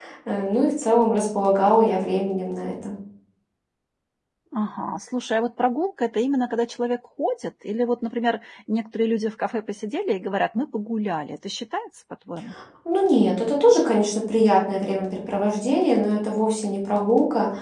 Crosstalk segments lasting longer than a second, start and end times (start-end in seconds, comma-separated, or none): none